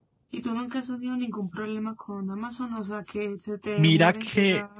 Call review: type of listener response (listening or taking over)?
taking over